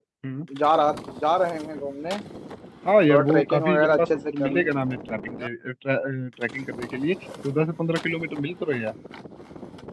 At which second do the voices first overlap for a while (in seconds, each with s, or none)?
3.1 s